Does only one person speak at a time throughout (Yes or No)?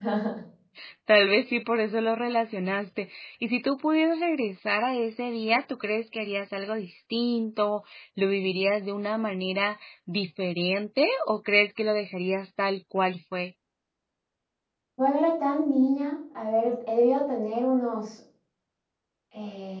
Yes